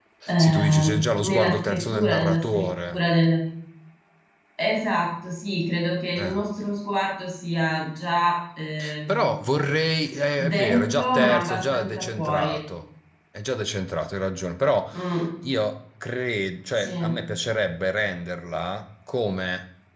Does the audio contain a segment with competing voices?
Yes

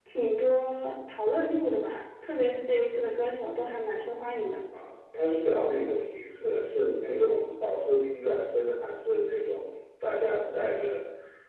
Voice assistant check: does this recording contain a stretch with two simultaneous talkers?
No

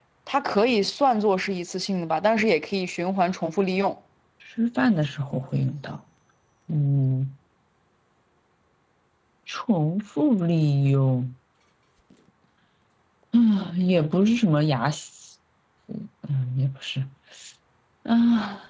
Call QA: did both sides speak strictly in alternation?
Yes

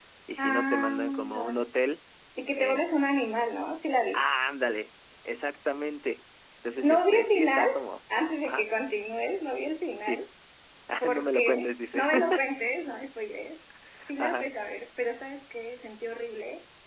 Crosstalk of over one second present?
Yes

